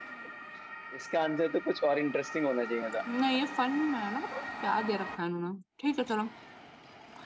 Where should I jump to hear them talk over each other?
none

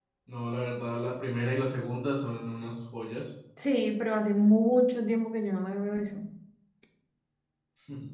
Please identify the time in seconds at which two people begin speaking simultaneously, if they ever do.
none

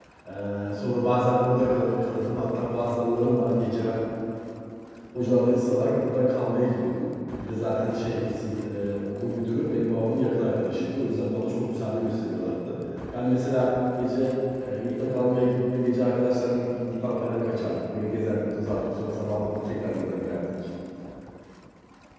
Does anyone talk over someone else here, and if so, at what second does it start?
none

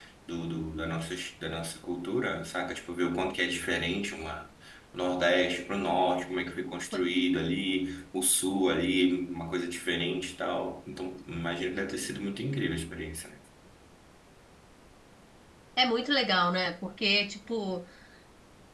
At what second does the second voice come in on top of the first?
none

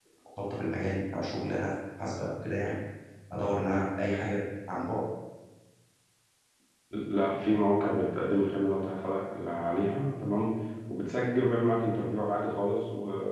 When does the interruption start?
none

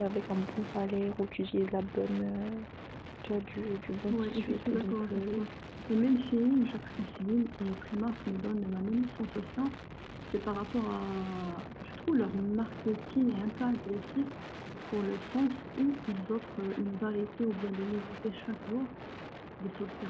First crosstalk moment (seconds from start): 4.1 s

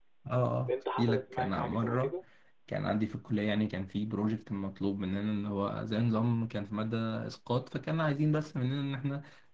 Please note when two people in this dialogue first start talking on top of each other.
0.7 s

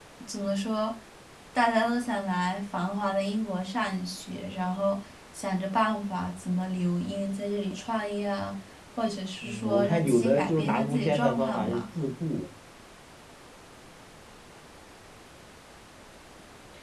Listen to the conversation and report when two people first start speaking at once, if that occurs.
9.4 s

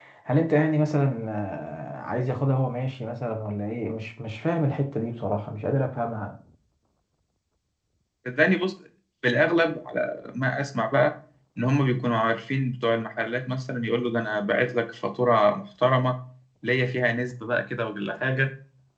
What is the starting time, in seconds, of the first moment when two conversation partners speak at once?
none

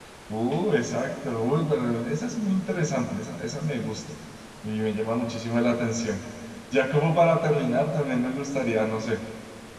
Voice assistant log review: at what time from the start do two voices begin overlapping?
none

